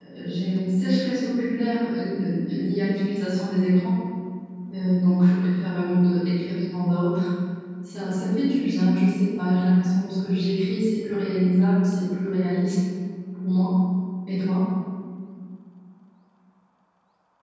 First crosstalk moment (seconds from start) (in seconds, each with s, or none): none